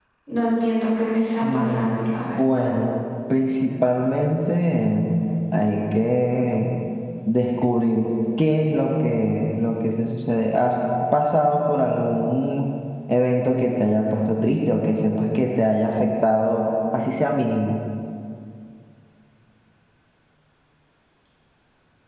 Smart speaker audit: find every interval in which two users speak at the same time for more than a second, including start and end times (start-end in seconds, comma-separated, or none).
1.4-2.7